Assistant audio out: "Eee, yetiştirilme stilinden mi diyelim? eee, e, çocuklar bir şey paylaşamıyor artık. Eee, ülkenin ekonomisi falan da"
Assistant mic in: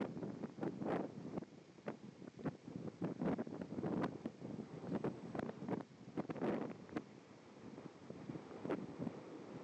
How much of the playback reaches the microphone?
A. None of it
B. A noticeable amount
A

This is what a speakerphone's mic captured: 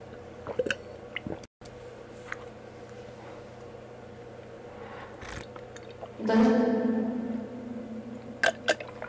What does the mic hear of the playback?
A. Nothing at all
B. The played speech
A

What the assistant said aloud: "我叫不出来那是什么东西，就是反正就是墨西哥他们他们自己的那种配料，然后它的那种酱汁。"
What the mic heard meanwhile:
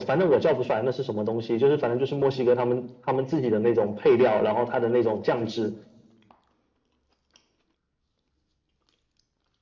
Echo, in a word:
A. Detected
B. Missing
A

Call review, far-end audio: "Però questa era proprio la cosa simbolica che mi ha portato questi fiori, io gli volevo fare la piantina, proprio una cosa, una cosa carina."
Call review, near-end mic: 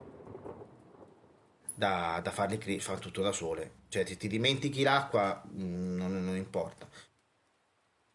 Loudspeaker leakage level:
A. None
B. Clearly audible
A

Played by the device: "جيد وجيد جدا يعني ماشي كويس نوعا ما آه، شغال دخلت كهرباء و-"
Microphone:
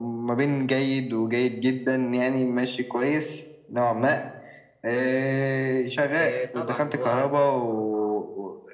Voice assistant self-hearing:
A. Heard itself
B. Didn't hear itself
A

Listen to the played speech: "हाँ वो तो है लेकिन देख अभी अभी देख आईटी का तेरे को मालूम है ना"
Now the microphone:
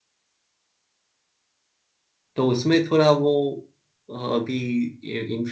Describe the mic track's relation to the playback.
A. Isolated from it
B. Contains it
A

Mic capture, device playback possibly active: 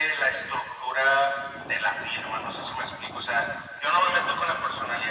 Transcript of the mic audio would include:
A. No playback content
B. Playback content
B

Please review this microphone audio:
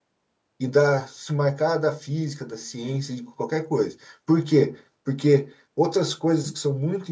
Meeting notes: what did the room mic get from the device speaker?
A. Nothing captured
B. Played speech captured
A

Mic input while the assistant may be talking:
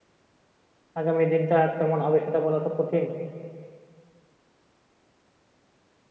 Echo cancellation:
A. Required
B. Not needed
B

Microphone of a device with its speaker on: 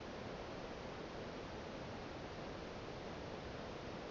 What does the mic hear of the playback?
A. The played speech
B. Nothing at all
B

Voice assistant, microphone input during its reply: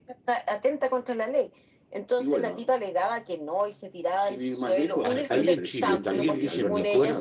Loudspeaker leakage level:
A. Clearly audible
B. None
A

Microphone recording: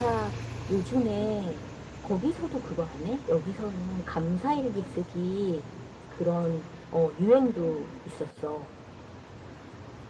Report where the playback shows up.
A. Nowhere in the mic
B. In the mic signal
B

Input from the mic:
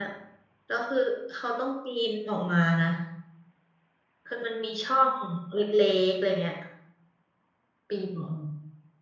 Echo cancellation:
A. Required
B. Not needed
B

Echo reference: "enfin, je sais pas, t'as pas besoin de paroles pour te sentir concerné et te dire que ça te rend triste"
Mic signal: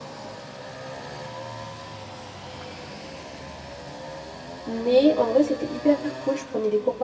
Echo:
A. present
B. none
B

